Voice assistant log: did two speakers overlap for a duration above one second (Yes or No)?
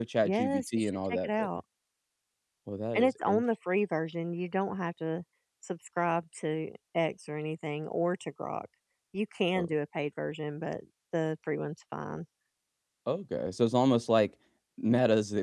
Yes